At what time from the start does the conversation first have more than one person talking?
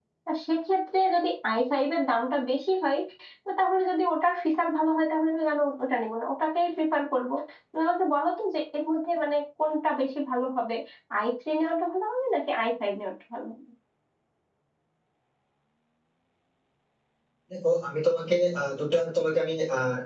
none

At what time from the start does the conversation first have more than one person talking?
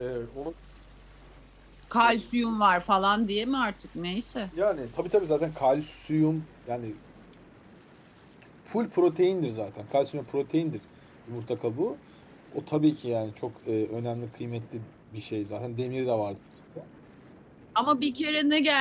none

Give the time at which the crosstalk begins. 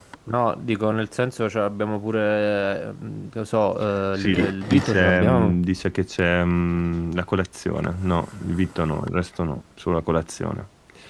4 s

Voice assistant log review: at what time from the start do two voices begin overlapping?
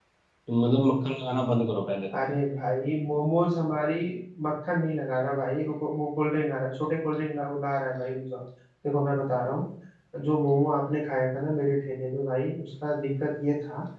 none

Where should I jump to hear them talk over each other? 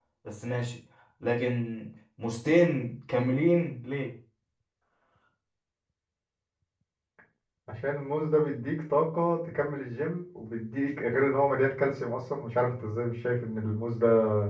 none

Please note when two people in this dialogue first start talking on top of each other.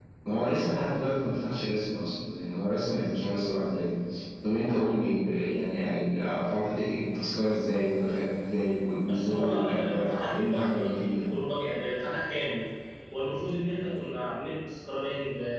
9 s

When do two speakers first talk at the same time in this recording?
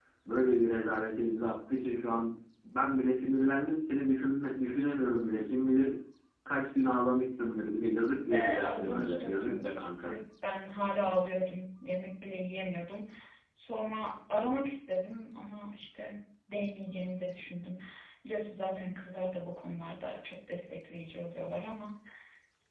8 s

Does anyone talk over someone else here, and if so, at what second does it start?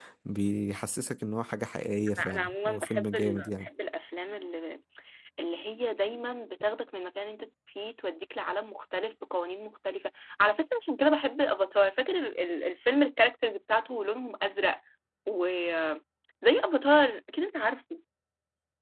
2 s

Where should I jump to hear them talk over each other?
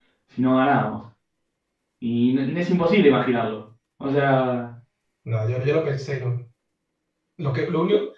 none

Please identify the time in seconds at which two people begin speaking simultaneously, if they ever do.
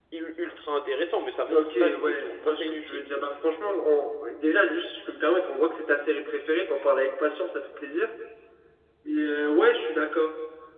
1 s

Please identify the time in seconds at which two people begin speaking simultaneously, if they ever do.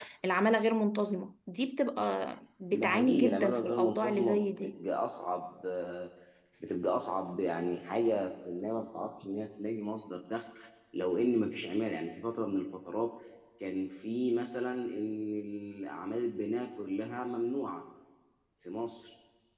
3 s

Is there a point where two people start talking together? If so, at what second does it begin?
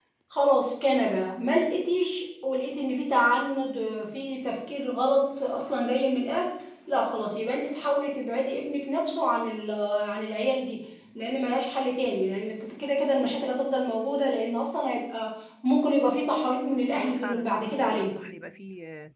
17 s

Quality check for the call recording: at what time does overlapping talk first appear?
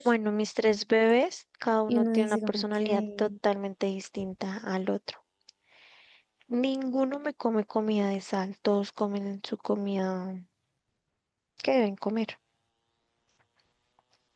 2 s

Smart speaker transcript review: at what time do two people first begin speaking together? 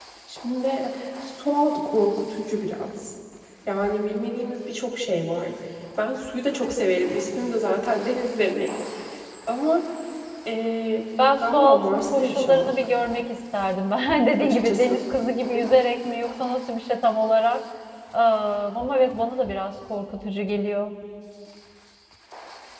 11 s

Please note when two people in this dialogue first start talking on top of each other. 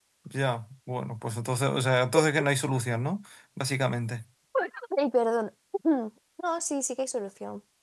none

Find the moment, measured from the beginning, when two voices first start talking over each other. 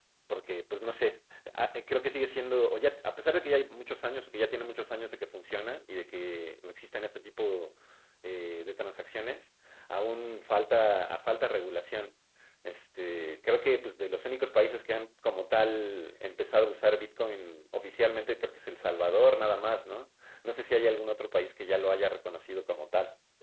none

